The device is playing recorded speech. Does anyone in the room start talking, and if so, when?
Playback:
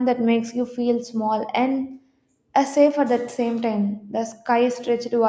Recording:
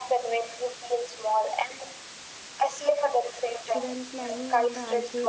3.6 s

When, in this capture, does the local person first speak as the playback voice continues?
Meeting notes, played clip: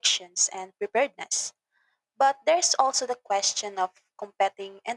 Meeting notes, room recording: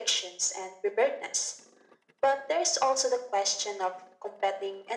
none

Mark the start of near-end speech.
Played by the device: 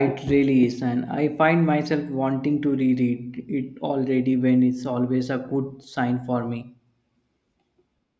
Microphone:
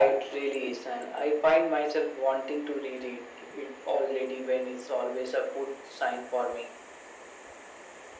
none

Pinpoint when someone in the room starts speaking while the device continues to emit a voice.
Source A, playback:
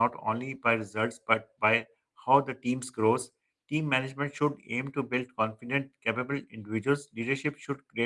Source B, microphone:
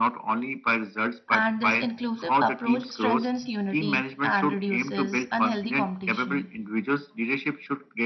1.3 s

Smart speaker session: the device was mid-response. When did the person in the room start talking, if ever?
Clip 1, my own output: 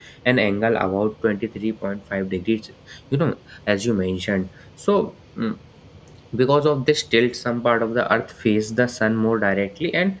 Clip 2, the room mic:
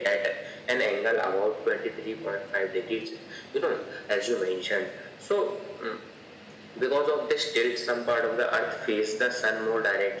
none

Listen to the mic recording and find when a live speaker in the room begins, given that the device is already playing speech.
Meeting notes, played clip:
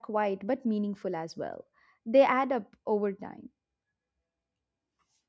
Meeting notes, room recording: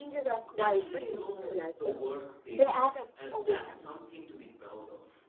0.5 s

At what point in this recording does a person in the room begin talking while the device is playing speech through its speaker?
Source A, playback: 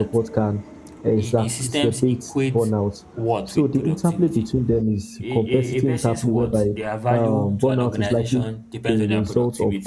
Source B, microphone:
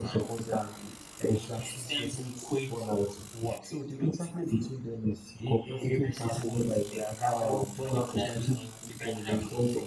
none

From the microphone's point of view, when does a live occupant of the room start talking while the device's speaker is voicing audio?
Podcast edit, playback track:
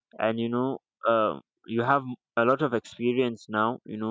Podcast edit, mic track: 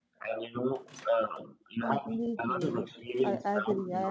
1.8 s

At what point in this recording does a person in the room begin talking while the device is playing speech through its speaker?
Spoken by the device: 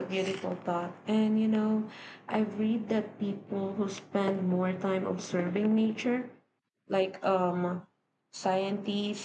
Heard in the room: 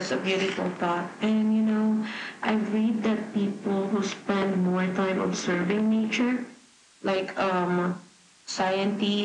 none

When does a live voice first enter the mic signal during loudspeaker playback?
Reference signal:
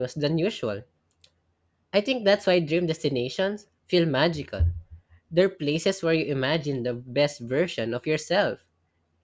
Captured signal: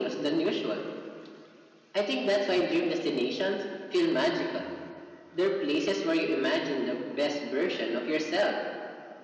none

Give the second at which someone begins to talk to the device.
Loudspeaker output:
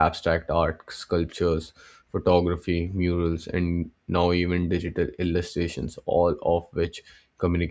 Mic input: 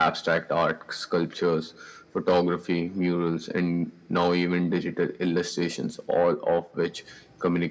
none

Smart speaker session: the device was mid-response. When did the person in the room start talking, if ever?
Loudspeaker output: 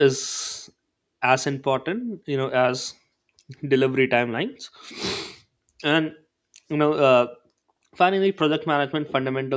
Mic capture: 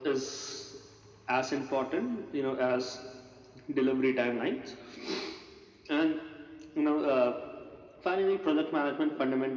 none

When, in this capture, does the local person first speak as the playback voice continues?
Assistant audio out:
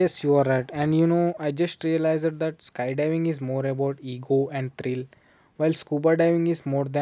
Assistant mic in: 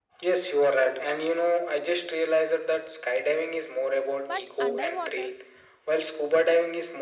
4.3 s

